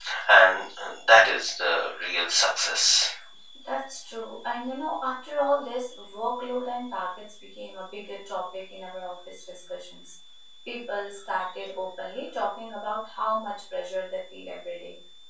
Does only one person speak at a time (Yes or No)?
Yes